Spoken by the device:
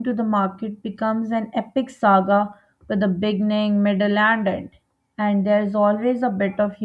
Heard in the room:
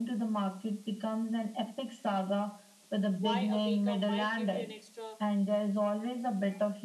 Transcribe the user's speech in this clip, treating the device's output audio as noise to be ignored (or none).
why a baker might give you an extra